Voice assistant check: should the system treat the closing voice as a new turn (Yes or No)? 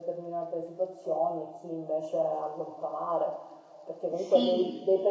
No